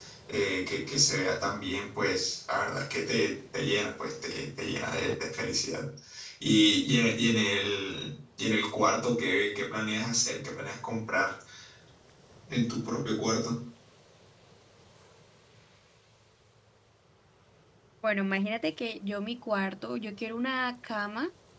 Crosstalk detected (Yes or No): No